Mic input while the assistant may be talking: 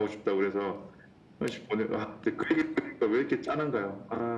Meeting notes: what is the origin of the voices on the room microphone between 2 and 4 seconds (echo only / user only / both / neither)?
echo only